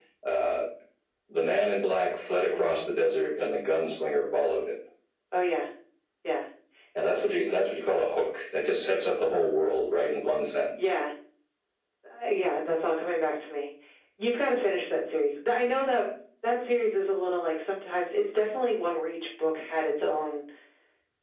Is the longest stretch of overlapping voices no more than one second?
Yes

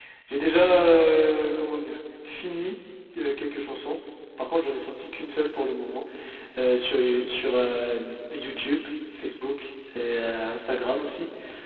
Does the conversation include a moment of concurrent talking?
No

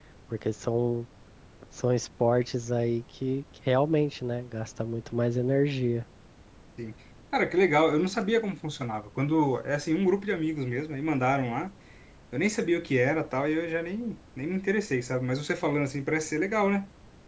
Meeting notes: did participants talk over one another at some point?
No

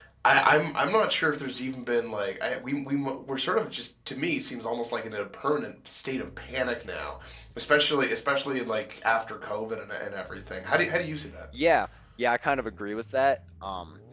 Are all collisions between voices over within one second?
Yes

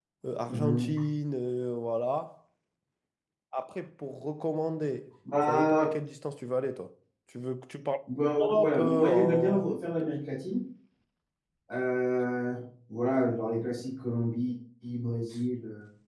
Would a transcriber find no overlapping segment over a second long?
No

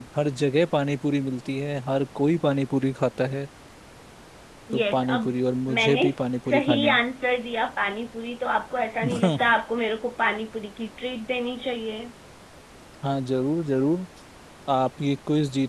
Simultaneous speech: Yes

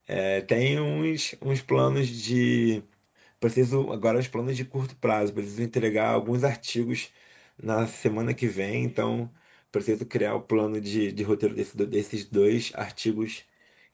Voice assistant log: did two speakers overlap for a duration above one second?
No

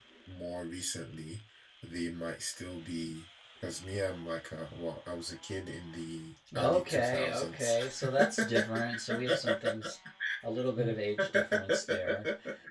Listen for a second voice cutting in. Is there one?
Yes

